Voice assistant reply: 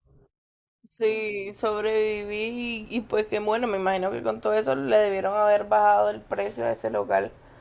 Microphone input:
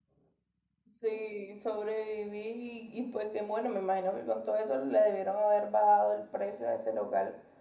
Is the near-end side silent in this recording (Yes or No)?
Yes